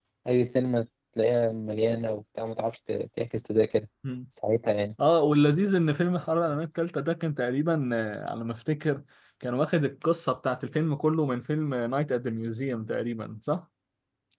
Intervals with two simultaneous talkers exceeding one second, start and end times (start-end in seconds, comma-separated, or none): none